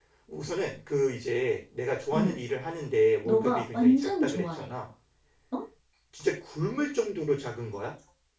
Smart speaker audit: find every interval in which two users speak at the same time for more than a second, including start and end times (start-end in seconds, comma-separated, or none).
3.2-4.7